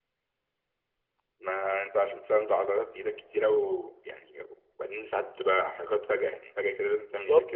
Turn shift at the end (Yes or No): Yes